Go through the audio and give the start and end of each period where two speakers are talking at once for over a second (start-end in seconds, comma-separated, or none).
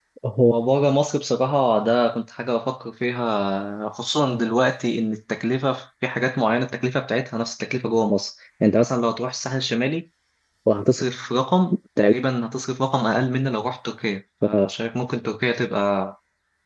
none